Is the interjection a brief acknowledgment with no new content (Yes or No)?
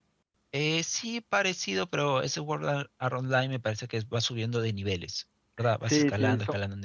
No